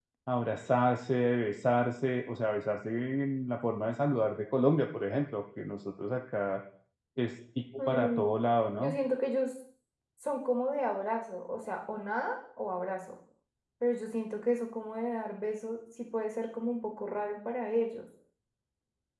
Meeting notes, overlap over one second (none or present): none